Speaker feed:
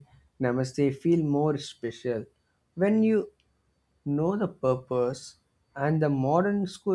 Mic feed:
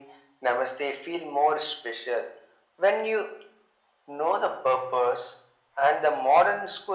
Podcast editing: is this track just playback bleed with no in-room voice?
Yes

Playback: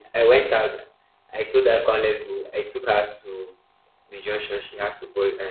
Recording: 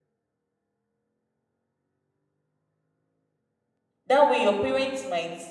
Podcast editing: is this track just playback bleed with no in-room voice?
No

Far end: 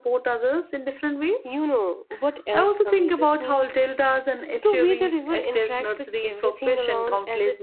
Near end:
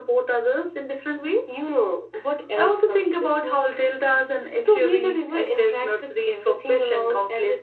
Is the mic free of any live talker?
Yes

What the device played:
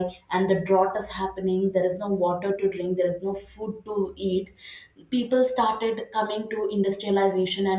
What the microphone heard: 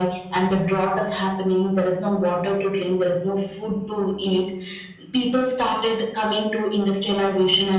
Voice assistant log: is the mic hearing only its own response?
Yes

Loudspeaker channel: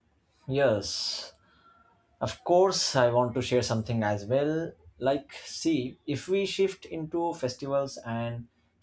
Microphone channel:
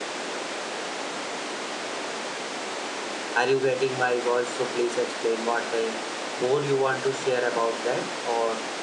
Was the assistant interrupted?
Yes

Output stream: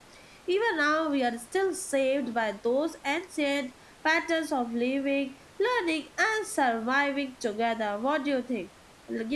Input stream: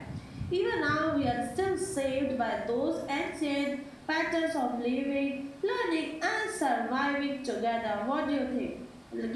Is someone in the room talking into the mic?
No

